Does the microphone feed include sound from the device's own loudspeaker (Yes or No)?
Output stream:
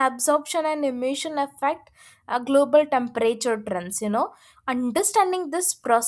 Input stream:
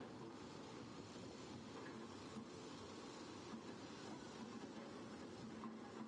No